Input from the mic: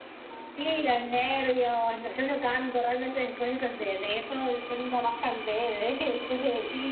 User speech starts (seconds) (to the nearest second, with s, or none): 1 s